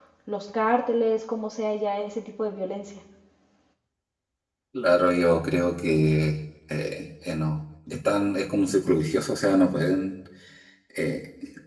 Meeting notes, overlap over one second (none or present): none